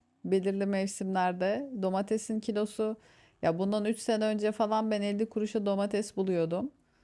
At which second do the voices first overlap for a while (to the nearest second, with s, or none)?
none